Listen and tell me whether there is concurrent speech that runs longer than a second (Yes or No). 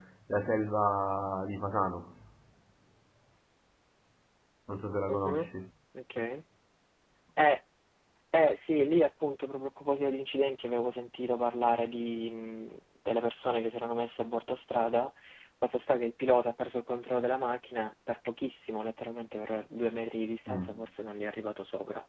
No